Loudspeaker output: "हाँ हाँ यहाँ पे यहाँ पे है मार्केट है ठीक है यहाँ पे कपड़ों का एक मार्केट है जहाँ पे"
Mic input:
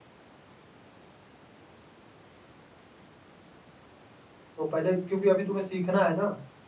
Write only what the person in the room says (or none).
तो पहले क्योंकि अभी तुम्हें सीखना है ना